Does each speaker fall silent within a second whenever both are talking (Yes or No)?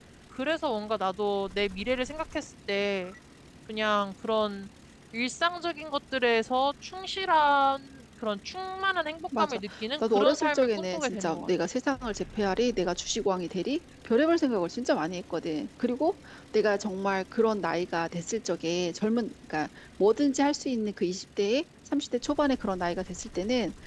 No